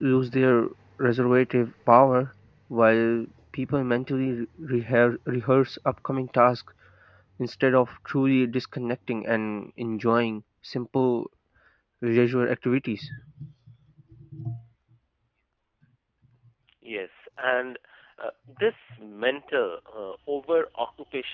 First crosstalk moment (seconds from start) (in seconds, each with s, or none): none